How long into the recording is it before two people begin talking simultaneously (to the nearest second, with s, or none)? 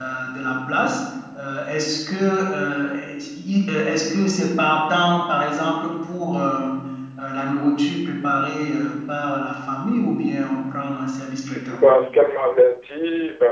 none